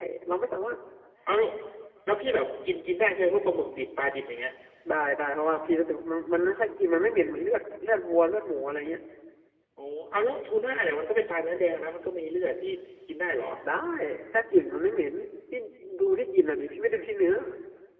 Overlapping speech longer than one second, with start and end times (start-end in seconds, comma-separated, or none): none